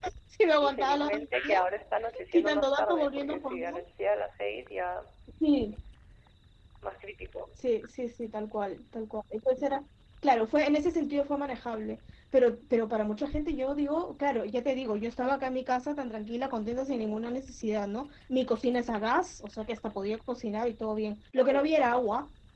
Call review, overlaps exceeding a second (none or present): present